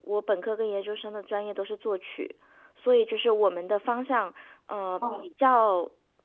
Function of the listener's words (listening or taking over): listening